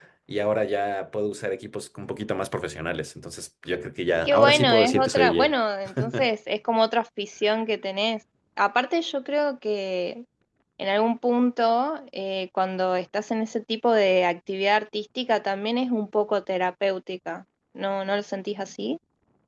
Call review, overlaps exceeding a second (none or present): present